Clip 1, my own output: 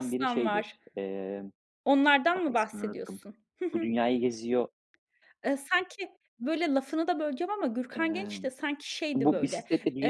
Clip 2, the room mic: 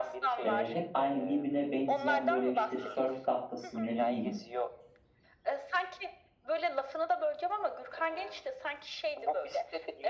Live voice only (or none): eee, hep aynı birbirine benzeyen böyle işte sörf tahtası, ne bileyim,